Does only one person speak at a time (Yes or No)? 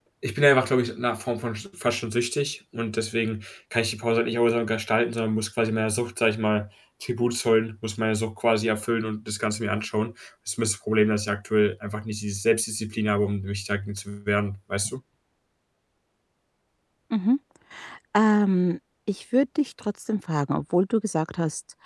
Yes